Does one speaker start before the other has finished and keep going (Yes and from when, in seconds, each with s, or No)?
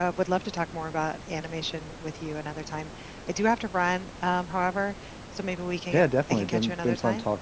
Yes, from 5.9 s